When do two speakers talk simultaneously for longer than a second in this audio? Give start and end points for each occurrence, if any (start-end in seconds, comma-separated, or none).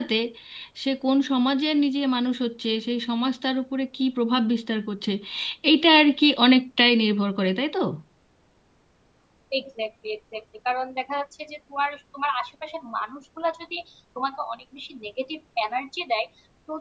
none